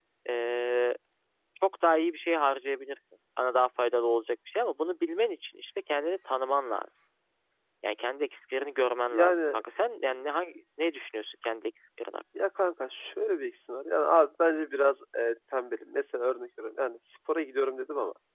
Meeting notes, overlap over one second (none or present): none